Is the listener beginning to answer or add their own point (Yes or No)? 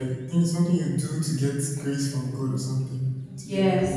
Yes